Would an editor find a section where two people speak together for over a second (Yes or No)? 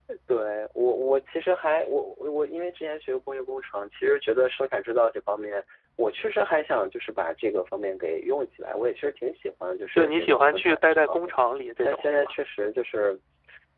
Yes